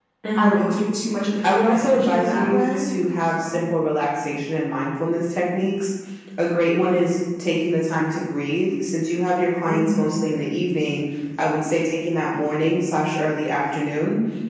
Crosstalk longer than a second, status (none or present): present